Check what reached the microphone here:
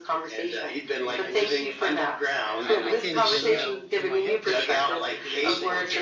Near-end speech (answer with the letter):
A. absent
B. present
B